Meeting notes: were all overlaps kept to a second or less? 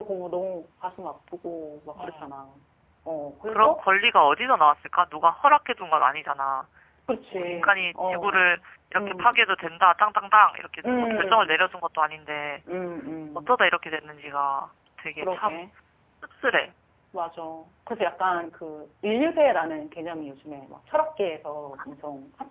No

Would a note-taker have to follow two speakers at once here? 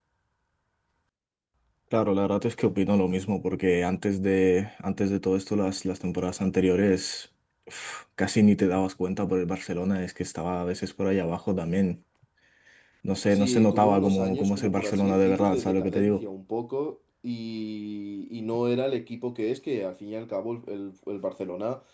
Yes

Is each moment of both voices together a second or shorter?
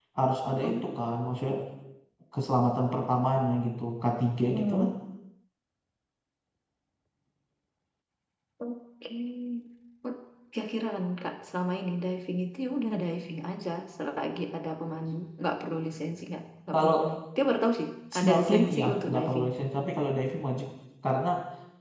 No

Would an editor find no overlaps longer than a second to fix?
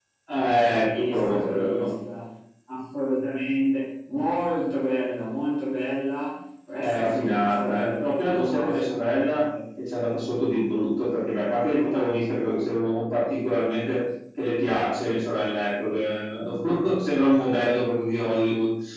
No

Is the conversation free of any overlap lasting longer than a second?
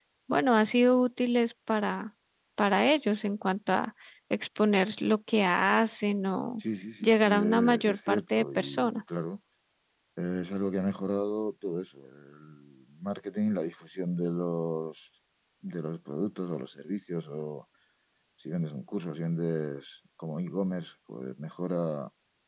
No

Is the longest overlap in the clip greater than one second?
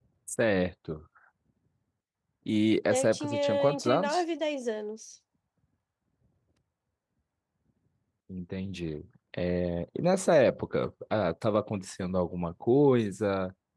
Yes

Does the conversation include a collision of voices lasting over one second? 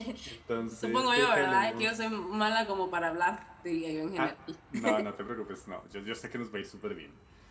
Yes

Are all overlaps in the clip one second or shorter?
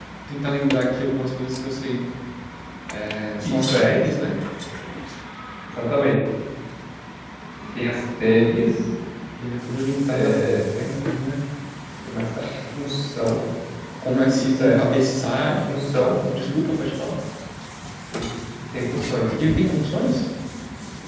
Yes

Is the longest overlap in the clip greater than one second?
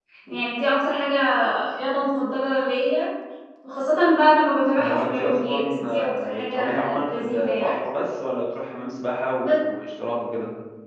Yes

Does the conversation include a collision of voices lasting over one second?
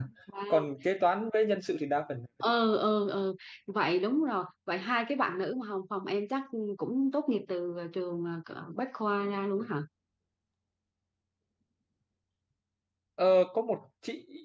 No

